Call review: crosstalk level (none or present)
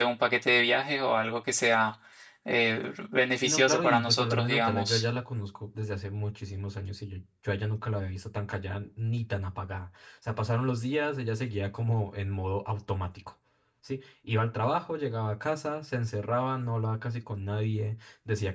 present